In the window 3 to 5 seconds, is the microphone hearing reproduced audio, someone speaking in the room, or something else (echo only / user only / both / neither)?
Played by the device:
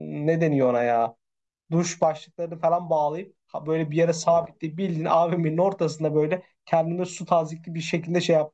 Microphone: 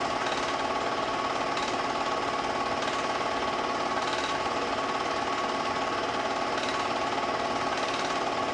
neither